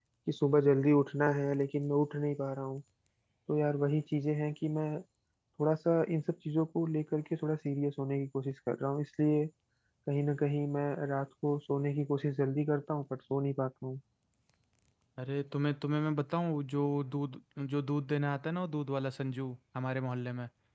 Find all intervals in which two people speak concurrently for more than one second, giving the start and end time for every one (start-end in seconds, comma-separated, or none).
none